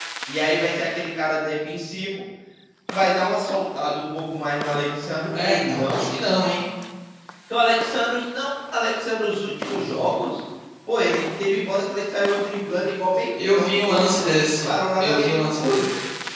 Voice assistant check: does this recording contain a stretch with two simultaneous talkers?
Yes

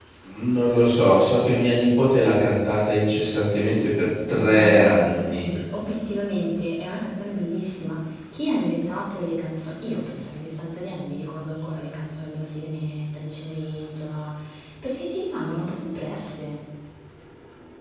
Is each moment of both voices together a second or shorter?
No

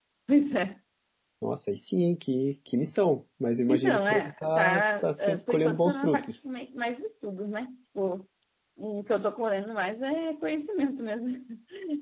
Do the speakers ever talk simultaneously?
Yes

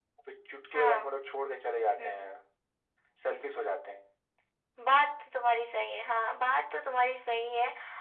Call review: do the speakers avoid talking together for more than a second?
Yes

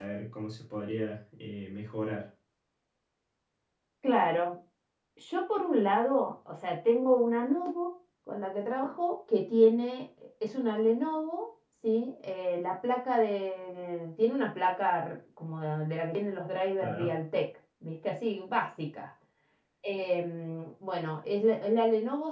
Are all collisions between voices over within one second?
Yes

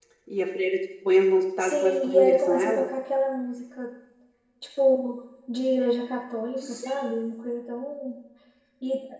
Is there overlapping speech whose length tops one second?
Yes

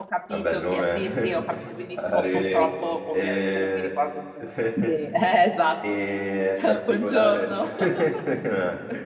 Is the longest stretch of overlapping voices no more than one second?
No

